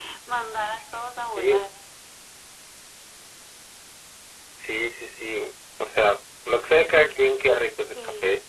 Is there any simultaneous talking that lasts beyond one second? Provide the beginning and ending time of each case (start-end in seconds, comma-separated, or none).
none